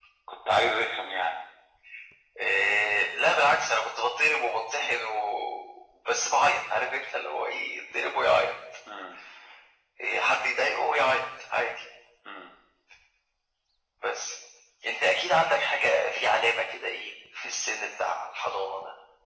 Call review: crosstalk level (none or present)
none